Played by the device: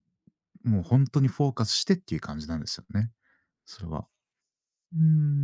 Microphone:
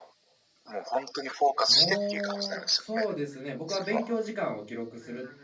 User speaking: Yes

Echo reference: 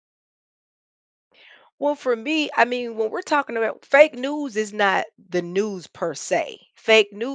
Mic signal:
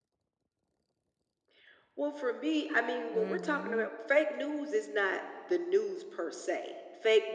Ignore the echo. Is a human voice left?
Yes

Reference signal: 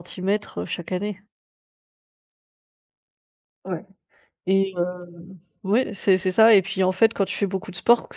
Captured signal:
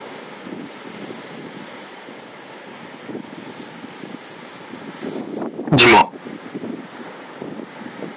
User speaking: Yes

